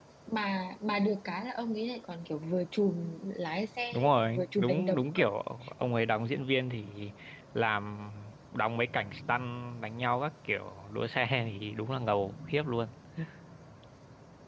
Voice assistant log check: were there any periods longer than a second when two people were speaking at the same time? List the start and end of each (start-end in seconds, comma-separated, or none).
3.9-5.2